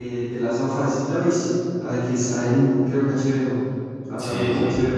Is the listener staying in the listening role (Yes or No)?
No